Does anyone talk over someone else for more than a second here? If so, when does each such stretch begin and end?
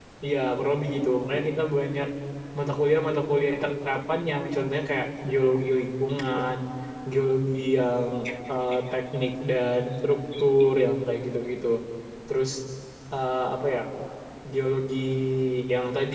none

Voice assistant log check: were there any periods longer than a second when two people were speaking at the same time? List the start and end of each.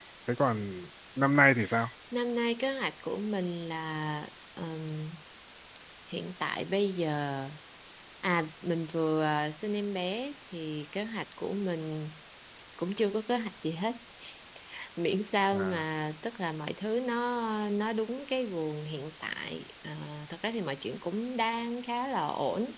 none

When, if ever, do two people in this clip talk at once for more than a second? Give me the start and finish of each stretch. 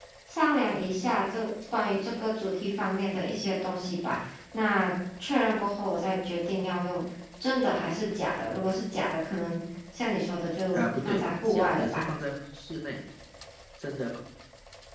10.7-12.0

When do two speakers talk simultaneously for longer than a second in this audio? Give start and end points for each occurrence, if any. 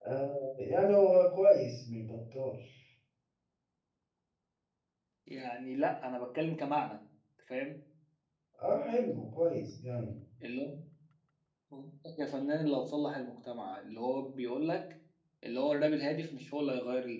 none

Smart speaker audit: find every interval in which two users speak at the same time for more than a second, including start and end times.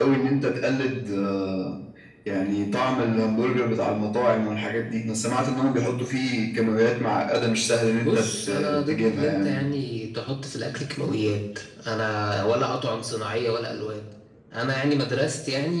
8.0-9.6

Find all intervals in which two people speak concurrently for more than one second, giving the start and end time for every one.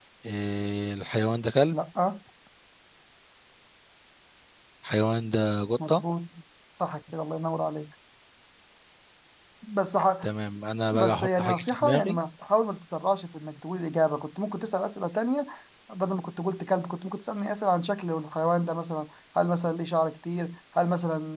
10.9-12.2

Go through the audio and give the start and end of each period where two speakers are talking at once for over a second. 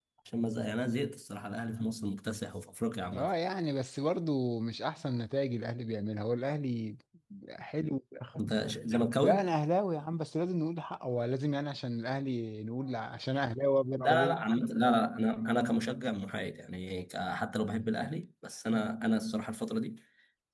none

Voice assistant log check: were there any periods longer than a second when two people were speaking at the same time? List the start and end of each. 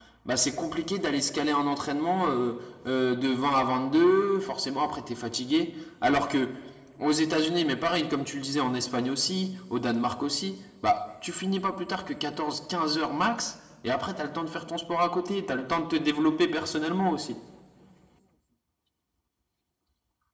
none

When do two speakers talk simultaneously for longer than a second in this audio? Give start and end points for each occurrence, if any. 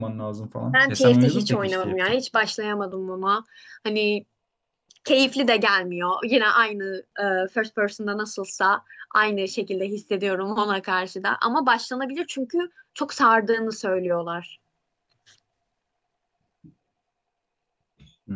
0.7-2.0

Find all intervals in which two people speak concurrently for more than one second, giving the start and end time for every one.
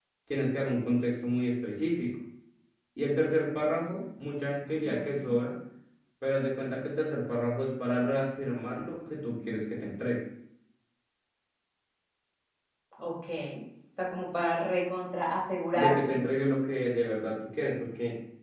none

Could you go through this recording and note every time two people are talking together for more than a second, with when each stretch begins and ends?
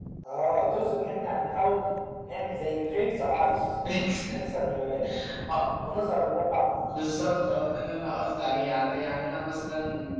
none

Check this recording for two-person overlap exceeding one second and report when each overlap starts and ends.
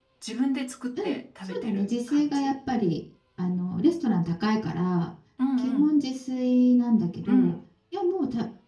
1.0-2.5

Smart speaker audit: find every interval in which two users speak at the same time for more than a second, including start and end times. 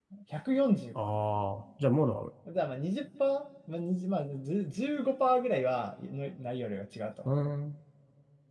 none

